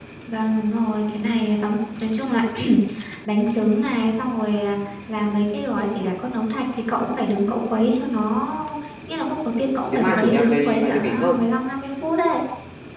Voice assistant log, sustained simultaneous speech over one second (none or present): present